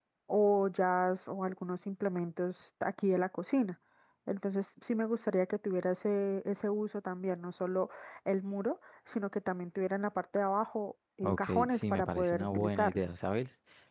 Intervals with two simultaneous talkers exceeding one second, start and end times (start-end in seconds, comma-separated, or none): 11.2-13.0